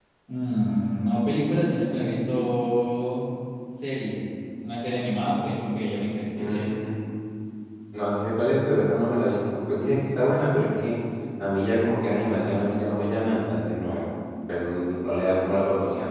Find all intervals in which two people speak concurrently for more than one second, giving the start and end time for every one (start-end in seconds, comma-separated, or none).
none